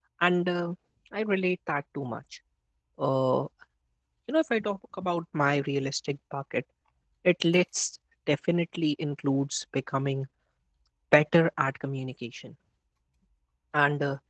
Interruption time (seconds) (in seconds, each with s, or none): none